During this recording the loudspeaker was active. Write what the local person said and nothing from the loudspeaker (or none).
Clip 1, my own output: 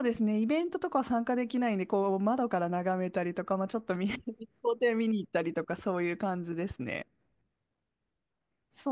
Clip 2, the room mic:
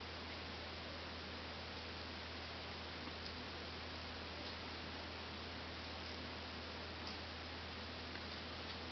none